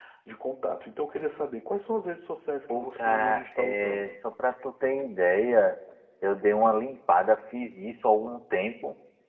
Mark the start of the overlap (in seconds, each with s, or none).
2.7 s